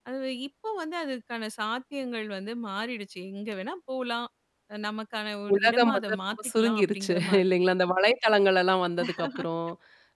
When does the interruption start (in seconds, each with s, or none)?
5.5 s